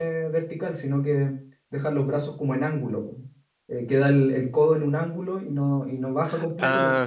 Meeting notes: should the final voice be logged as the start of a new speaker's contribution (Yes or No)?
No